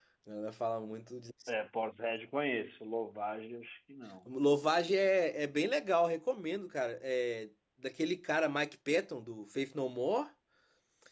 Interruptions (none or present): none